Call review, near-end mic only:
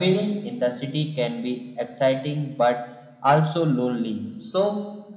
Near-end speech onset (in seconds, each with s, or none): none